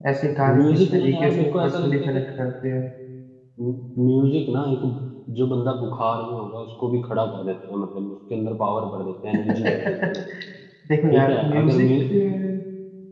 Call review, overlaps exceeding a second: present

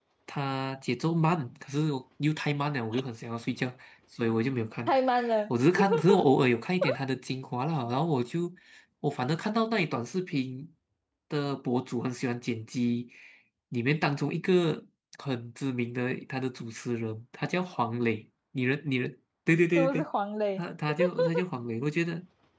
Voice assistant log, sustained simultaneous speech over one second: none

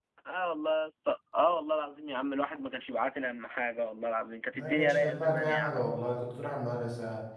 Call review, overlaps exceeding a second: present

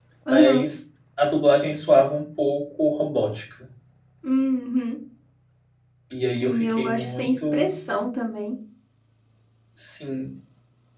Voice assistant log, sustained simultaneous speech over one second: present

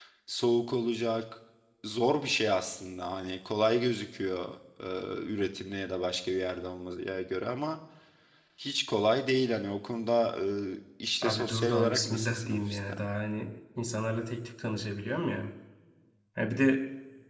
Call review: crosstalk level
present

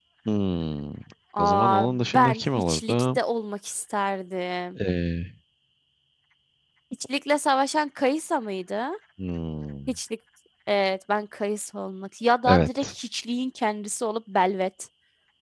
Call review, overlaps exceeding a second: present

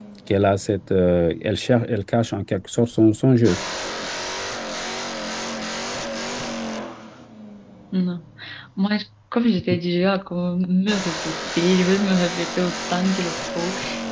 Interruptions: none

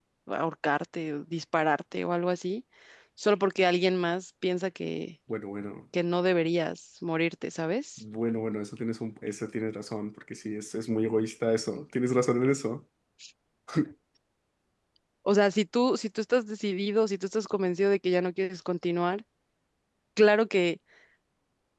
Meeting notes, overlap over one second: none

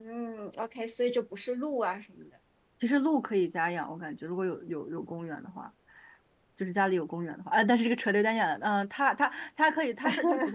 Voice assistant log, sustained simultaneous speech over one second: none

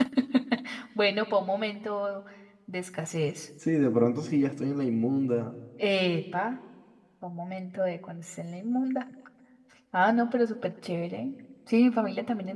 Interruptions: none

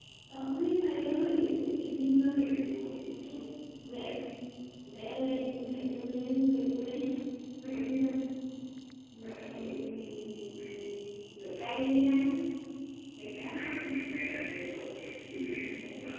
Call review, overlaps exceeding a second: none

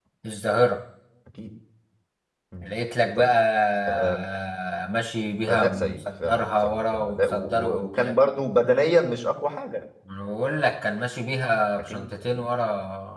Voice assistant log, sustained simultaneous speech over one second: present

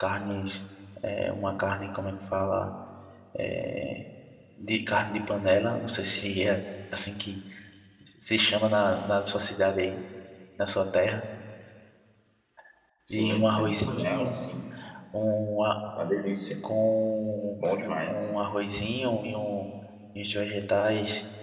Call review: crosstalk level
present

